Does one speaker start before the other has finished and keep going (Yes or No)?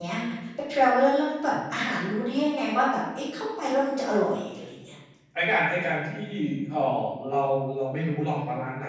No